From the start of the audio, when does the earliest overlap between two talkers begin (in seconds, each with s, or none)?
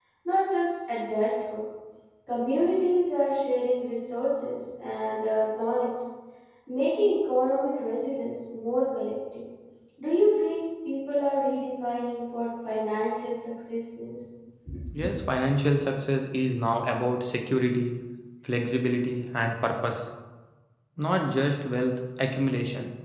none